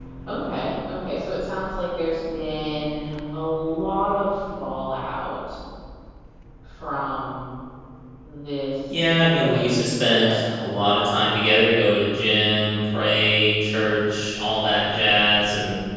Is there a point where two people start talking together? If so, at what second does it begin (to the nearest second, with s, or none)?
9 s